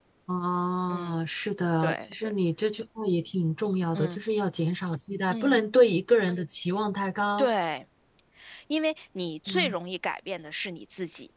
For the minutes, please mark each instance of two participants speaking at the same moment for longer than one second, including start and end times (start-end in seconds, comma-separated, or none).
none